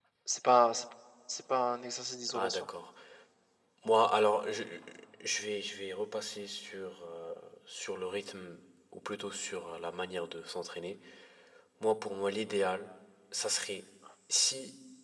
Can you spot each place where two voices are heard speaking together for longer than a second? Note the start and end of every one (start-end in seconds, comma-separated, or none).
none